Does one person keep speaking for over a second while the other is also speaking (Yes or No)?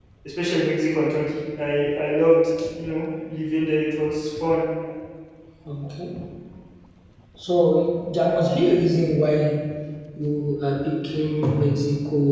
No